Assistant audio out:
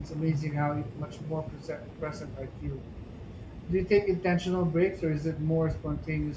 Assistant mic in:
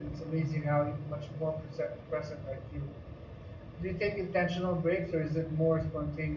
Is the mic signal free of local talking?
Yes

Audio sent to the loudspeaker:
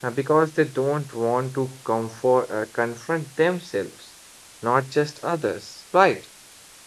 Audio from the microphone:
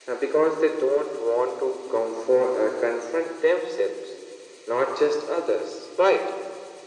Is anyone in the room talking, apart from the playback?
No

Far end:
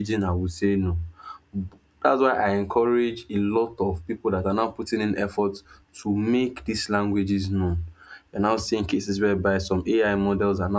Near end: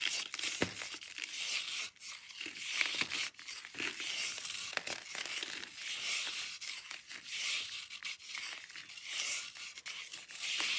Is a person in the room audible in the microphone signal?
No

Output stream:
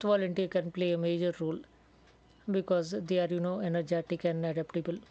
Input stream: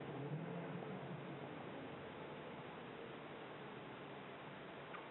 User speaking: No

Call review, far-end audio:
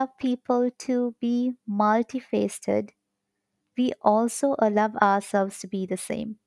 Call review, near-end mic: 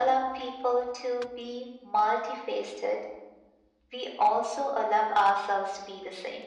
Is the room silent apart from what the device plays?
Yes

